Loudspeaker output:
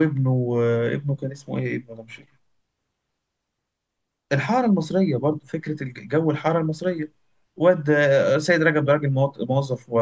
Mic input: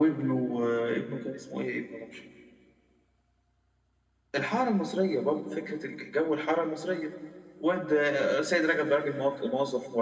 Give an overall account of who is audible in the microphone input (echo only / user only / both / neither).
echo only